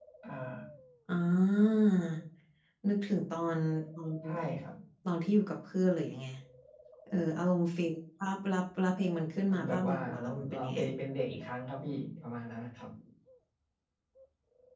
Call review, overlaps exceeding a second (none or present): present